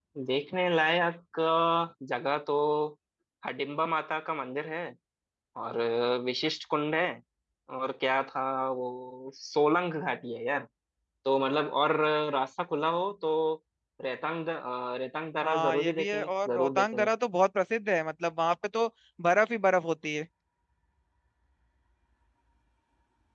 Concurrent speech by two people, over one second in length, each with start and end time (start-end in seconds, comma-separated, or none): 15.4-17.1